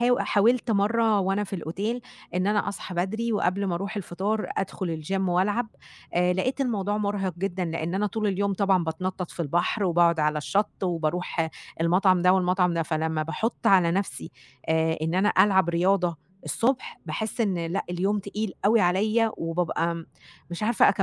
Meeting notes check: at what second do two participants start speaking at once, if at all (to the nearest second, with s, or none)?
none